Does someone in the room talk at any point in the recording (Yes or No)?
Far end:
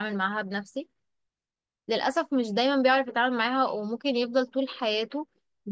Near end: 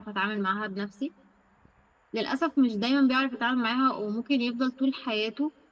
No